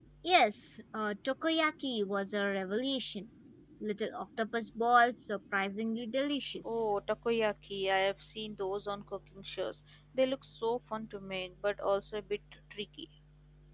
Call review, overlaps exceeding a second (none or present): none